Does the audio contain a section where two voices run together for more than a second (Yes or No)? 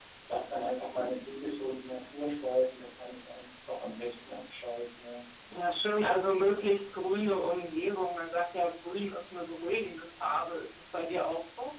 No